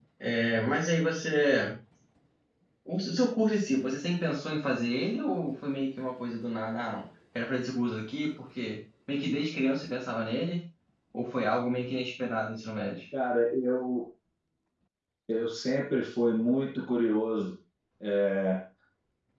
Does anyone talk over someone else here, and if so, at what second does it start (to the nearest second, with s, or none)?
none